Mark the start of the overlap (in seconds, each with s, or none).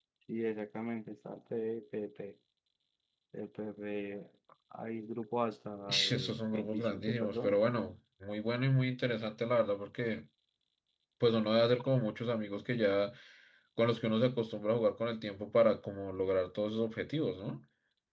5.9 s